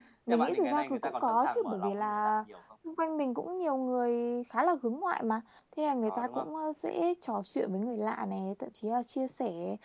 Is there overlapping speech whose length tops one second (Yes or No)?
Yes